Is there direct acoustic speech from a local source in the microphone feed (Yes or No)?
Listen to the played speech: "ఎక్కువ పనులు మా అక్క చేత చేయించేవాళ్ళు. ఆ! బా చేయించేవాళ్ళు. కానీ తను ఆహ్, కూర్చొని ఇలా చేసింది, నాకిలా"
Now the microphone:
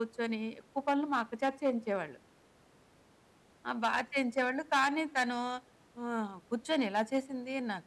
No